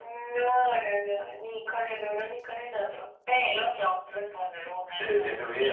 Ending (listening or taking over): taking over